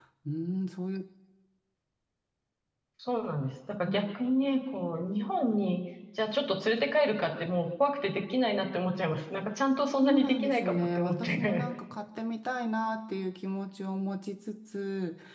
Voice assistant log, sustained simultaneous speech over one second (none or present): present